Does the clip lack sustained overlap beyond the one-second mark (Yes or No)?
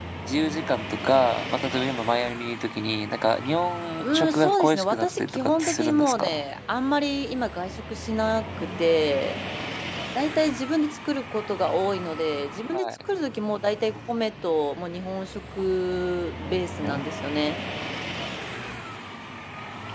No